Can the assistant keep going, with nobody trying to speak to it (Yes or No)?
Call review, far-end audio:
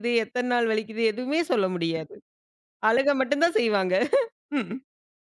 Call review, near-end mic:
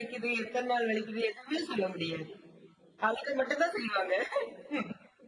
Yes